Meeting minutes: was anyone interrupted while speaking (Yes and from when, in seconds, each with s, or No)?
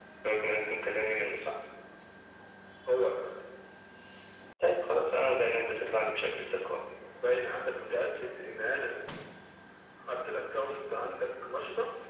No